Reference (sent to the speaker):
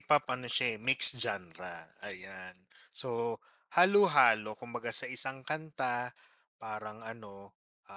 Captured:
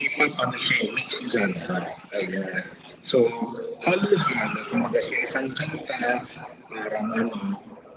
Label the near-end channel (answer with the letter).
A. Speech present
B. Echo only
B